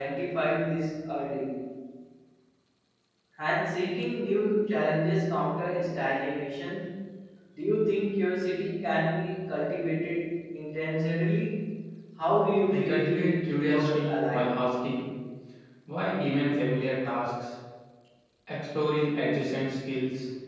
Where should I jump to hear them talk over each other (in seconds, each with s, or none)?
12.7 s